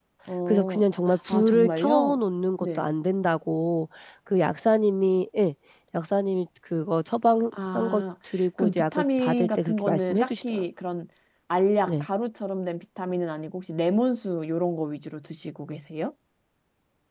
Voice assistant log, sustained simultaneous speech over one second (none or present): present